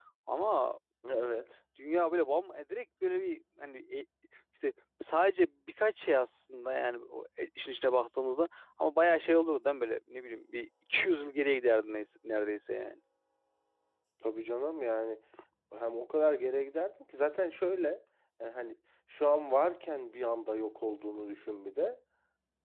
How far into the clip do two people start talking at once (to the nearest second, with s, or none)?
none